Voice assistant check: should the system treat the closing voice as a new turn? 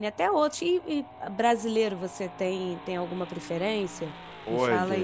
Yes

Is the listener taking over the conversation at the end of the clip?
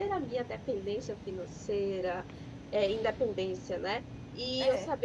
No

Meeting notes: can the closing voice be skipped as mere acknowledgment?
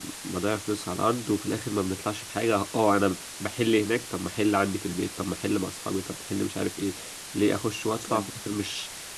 Yes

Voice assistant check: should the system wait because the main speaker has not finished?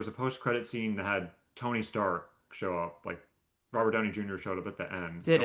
Yes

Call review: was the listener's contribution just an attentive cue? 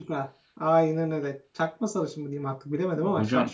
No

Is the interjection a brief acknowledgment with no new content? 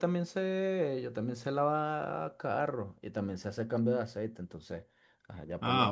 No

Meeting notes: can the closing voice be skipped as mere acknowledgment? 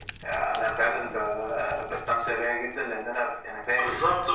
No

